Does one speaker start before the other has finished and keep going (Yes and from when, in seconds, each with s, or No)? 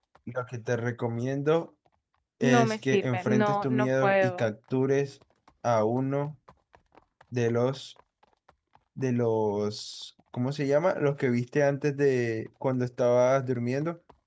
Yes, from 2.4 s